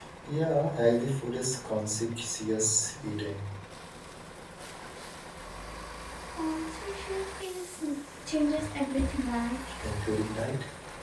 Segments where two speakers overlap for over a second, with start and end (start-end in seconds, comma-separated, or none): none